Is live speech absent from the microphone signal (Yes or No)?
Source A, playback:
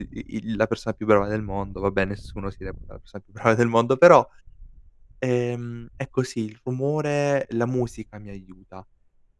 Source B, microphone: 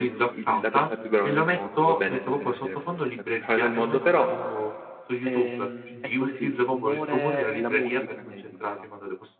No